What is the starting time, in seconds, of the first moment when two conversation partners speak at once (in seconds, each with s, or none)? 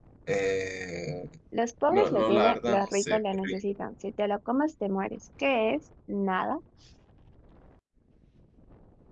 1.9 s